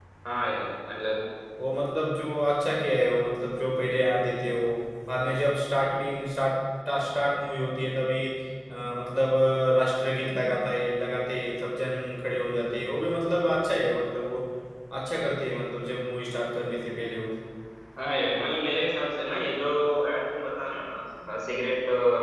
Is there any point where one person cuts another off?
No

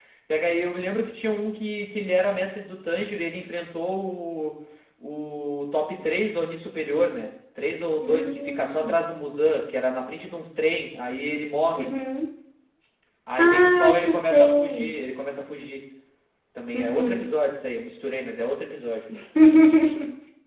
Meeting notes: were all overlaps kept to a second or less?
No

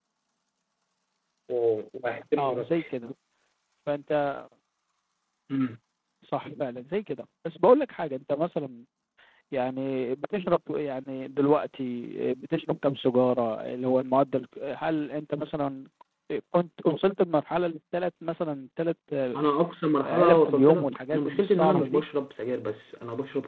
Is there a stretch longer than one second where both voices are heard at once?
Yes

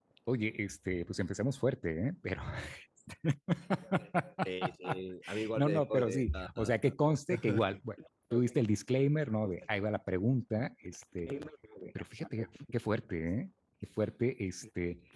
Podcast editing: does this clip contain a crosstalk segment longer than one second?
Yes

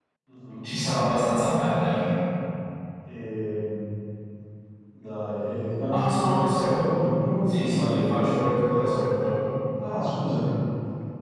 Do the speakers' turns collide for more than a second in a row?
Yes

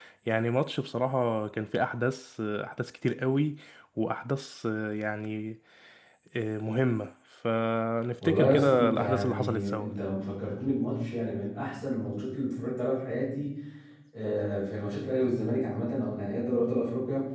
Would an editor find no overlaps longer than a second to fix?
No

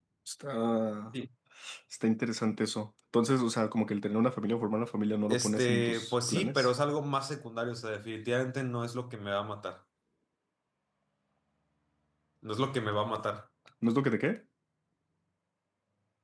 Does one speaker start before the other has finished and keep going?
Yes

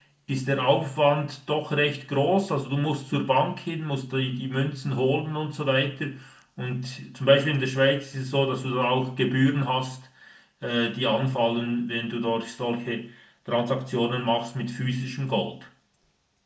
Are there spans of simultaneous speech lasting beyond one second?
No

